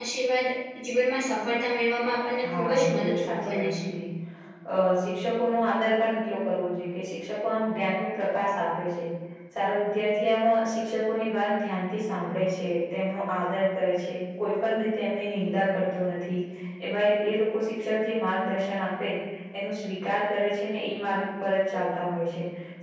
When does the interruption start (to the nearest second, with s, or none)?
2 s